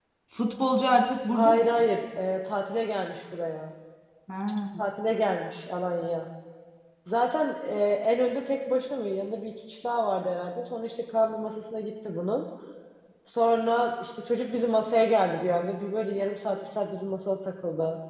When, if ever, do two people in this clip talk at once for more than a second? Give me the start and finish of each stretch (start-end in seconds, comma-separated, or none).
none